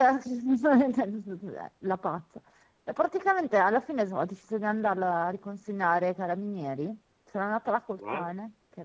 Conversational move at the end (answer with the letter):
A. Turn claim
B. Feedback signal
B